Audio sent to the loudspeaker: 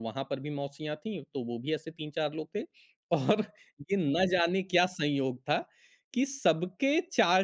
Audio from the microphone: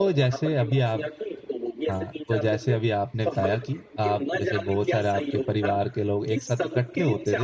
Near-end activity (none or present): present